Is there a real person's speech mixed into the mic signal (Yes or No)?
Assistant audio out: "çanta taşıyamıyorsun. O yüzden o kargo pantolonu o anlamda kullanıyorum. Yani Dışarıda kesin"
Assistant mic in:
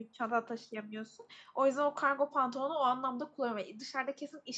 No